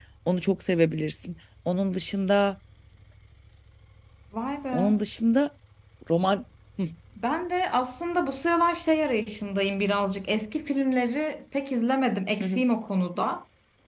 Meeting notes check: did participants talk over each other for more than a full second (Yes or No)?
No